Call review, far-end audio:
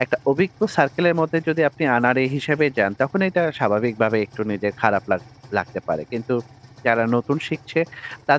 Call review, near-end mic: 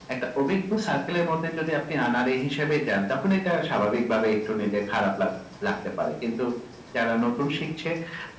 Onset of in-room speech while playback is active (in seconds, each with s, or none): none